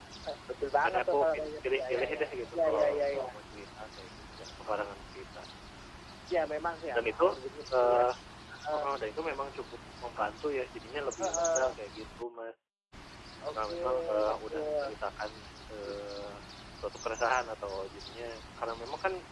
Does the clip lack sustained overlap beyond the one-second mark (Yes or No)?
No